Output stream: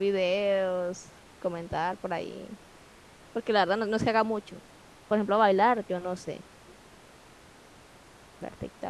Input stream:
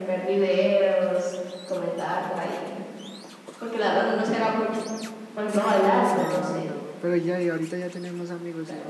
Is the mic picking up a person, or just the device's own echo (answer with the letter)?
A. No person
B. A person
B